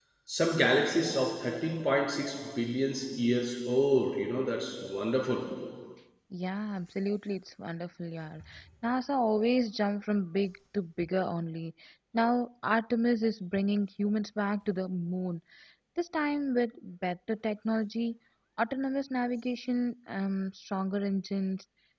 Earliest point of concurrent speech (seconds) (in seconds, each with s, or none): none